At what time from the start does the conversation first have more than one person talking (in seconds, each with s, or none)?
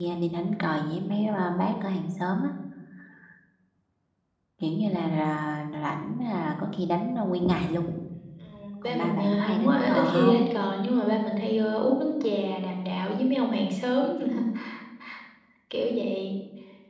8.8 s